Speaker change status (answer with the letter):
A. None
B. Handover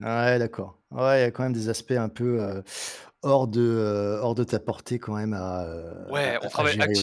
B